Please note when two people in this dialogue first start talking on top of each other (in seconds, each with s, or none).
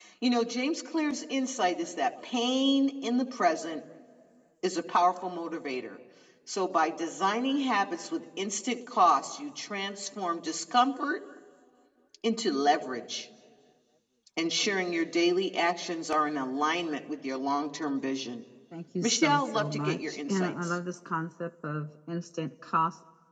19.0 s